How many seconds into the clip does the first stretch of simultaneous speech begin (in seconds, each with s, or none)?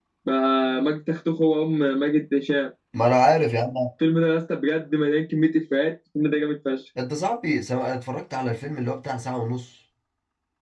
none